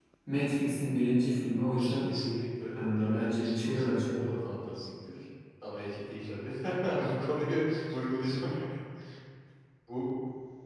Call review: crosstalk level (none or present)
present